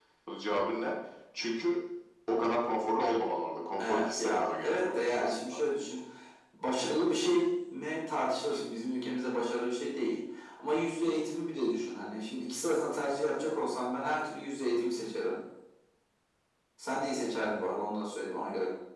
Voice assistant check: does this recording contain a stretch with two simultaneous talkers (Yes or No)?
Yes